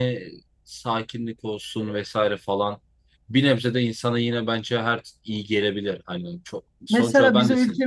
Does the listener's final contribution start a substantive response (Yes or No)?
Yes